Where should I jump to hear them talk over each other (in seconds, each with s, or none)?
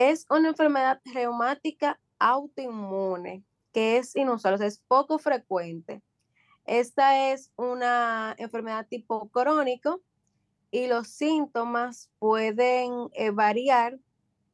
none